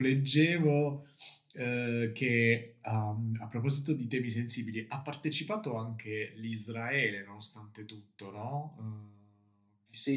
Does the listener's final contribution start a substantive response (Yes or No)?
Yes